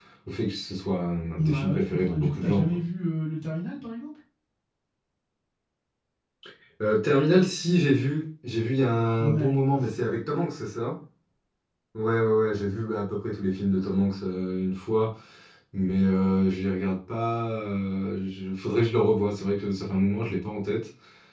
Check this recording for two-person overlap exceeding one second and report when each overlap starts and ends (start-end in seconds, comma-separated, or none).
1.4-2.8